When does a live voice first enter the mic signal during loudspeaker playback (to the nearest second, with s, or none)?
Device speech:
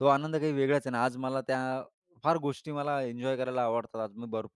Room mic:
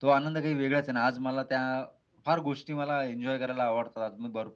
none